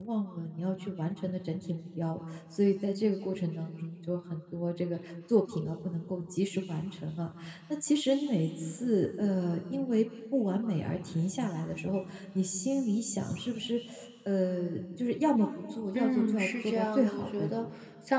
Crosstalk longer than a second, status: present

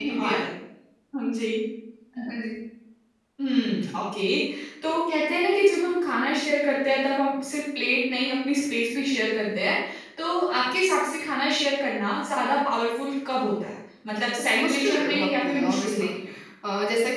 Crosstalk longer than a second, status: present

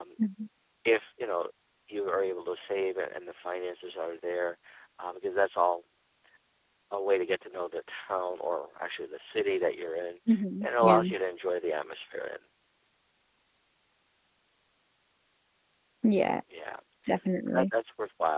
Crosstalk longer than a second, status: none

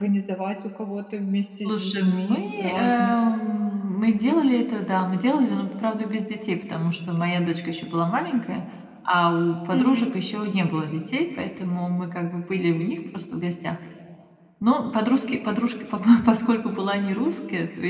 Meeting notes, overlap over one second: present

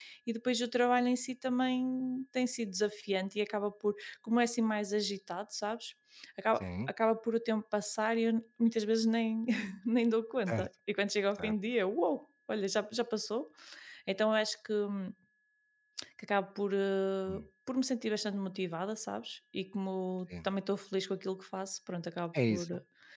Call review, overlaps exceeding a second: none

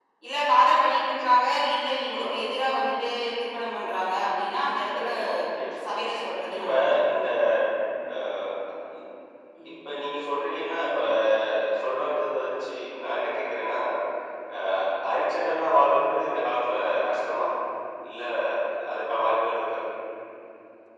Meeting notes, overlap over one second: none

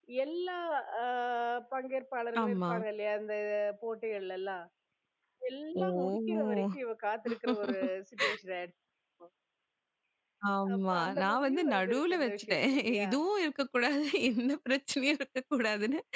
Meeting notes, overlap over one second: present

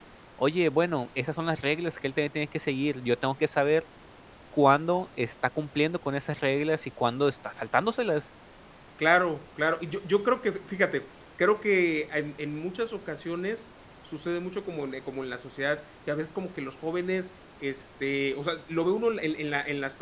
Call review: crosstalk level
none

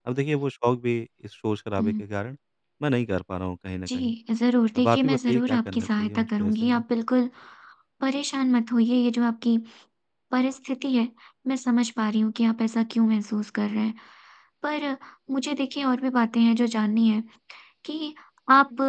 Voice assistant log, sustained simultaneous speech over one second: present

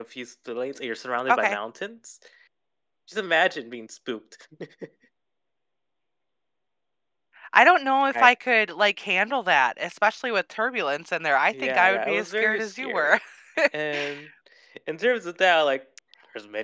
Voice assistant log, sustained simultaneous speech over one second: present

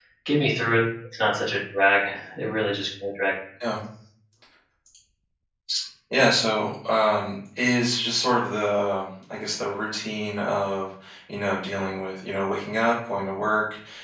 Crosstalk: none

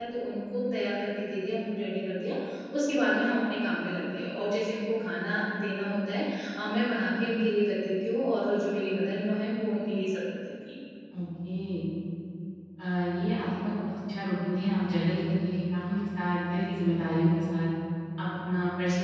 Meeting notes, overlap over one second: none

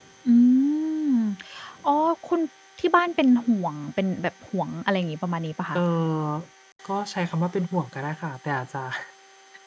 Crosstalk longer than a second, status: none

